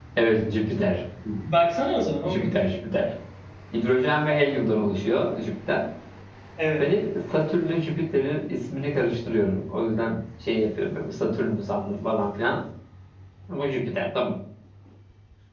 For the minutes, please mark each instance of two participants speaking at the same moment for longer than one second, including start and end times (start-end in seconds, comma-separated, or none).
none